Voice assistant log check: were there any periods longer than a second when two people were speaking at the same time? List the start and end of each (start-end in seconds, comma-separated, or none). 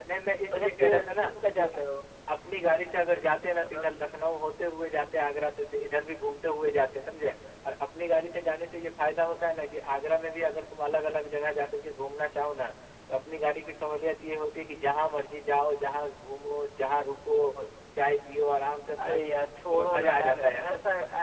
0.5-1.8, 19.0-20.7